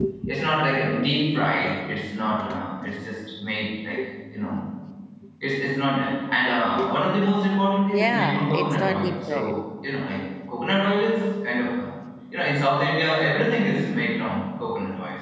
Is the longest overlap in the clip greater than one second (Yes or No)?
Yes